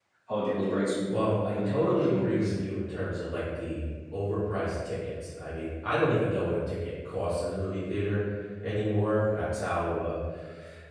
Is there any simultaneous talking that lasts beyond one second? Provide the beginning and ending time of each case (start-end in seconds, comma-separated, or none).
1.1-2.5